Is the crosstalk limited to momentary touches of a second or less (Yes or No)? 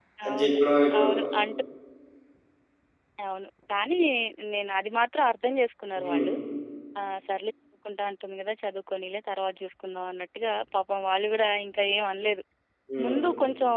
Yes